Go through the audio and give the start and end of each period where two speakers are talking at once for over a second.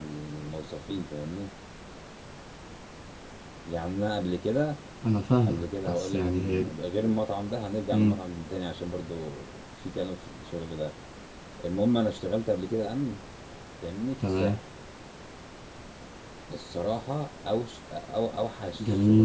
5.5-6.8

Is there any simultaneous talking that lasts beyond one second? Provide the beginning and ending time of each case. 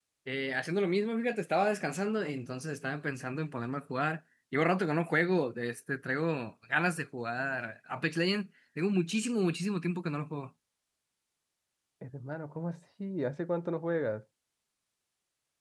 none

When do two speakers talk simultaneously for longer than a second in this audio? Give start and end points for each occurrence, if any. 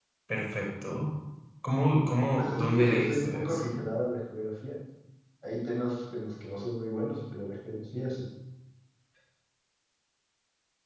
2.4-3.8

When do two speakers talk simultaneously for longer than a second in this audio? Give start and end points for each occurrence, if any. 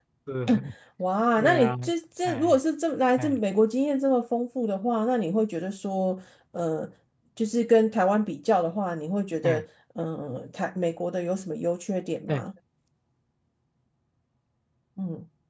none

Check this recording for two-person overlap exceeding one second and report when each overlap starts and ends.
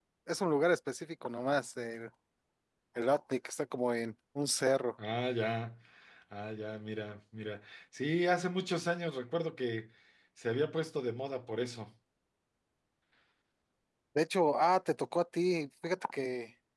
none

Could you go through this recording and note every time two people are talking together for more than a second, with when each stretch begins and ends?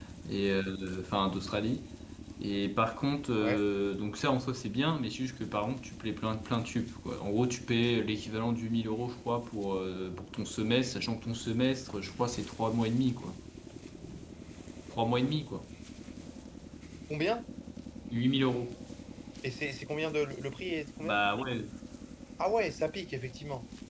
none

